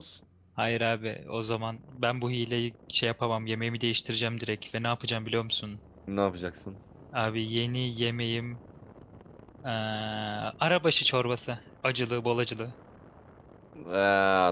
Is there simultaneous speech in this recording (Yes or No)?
No